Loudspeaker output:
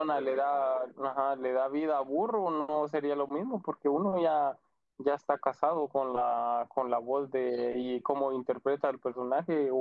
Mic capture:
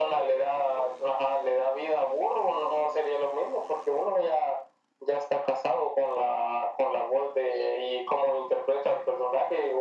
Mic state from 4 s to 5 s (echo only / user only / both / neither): echo only